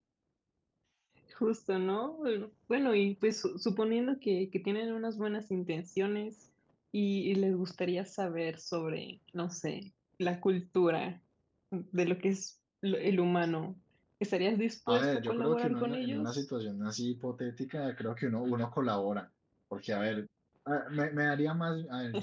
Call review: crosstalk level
present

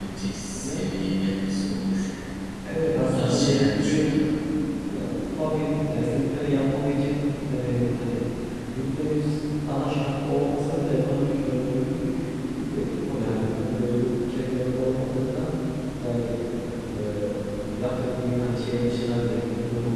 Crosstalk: present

